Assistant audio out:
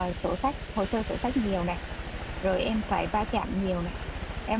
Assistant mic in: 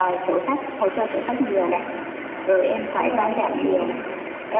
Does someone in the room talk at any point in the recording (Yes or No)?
Yes